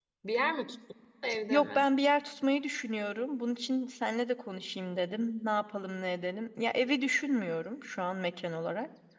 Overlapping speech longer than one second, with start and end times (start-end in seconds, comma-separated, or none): none